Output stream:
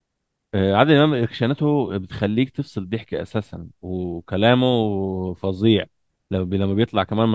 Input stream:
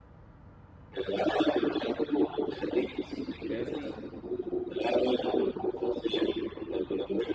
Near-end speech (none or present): present